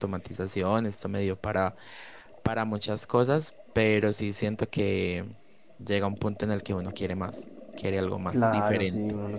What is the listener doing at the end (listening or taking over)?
taking over